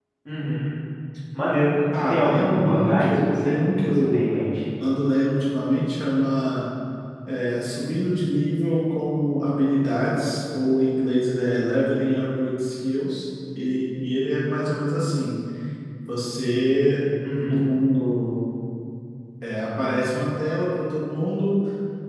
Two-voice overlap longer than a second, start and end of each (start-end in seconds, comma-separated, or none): 2.0-4.4